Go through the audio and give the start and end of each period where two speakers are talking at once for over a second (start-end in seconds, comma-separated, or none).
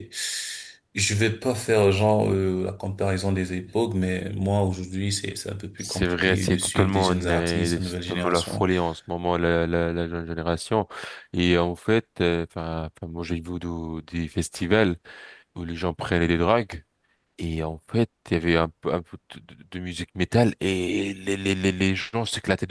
5.8-8.7